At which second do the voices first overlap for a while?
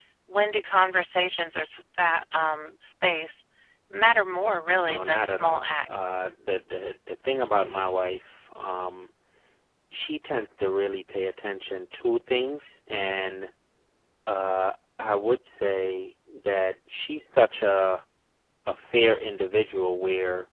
4.9 s

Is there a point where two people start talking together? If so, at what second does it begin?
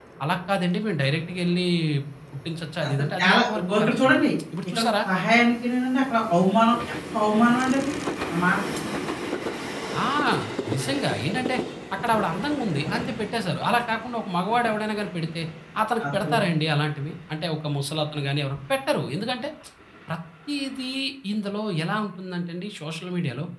2.9 s

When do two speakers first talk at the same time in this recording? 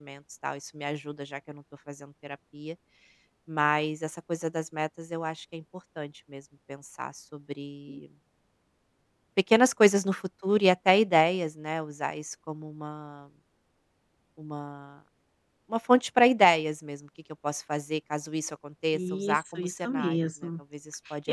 18.9 s

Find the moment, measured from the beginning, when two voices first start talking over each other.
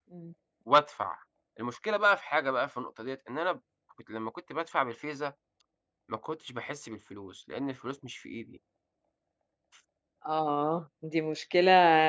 none

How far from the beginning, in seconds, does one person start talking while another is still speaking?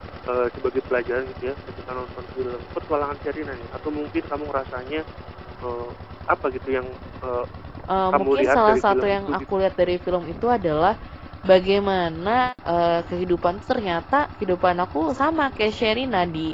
8.1 s

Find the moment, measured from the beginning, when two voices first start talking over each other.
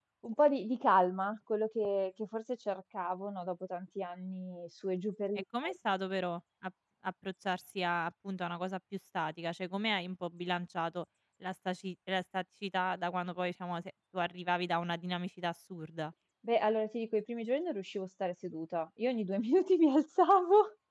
none

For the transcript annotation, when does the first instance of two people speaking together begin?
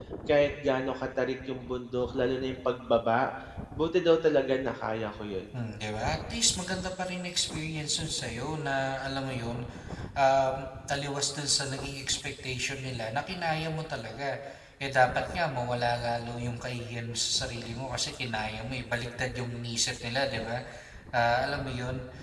none

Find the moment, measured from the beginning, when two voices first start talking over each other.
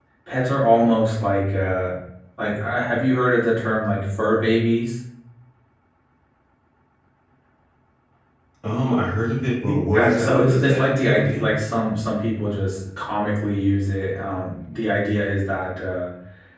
9.9 s

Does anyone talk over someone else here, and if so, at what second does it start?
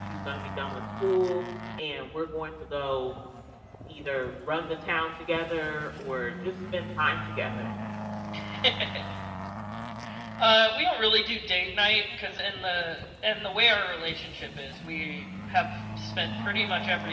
none

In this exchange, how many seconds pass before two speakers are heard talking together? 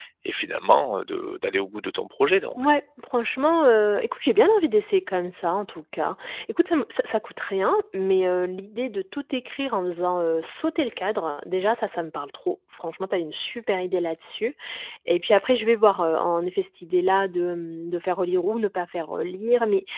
none

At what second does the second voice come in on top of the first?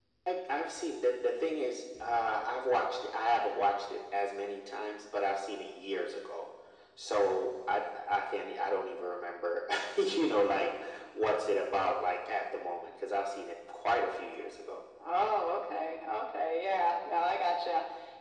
none

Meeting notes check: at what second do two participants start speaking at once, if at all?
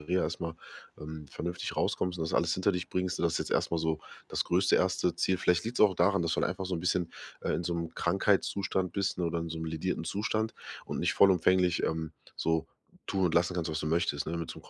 none

